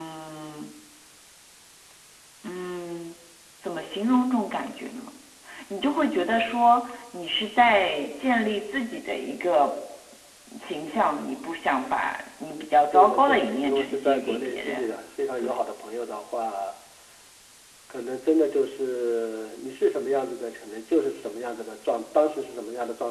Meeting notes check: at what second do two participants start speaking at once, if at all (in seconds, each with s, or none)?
12.9 s